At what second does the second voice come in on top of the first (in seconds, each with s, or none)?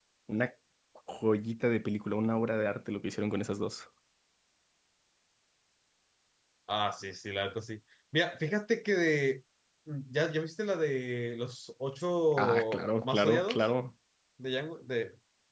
12.3 s